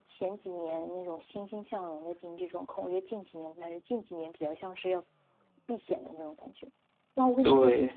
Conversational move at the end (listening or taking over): listening